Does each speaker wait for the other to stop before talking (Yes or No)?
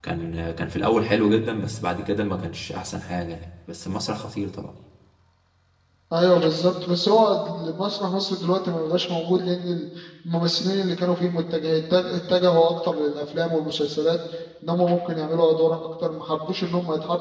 Yes